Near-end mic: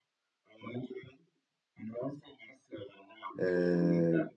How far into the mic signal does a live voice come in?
3.4 s

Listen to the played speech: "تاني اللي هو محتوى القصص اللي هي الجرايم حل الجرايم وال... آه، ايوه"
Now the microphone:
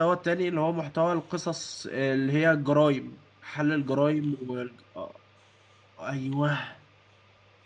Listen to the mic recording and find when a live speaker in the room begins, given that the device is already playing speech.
none

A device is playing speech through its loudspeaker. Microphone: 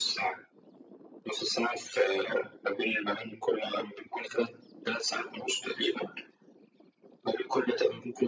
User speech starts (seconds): none

